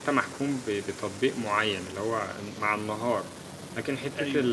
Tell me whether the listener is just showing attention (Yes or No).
Yes